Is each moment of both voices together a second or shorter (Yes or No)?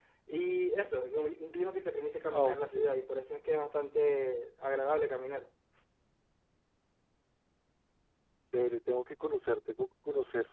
Yes